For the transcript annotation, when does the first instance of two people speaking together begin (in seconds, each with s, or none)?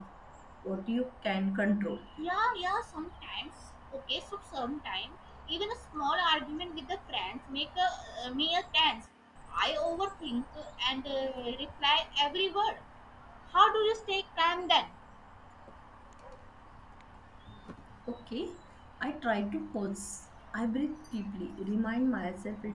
none